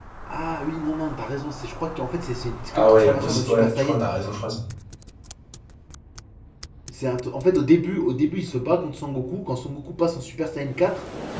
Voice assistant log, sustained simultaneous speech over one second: present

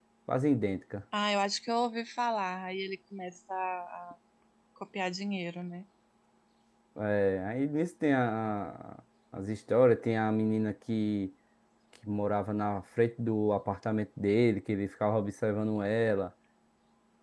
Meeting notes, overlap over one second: none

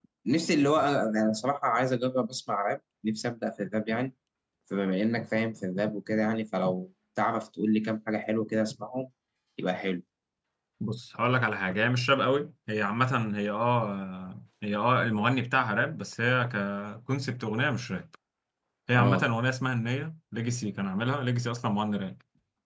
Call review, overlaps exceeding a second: none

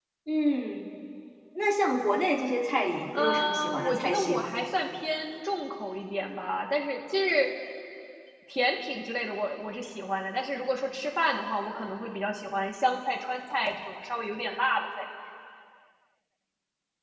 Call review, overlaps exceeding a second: present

